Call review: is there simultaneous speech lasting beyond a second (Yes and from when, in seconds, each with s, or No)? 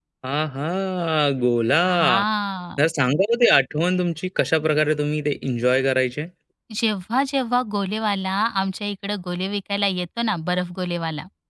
No